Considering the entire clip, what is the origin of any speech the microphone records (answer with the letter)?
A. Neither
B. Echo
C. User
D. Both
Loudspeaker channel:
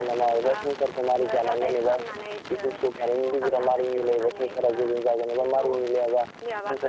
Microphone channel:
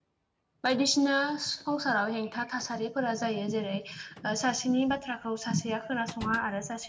C